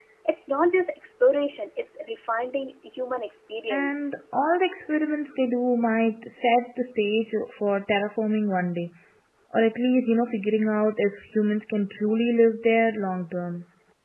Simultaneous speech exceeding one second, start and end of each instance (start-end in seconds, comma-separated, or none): none